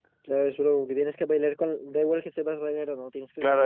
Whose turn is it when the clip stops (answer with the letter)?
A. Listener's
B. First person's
A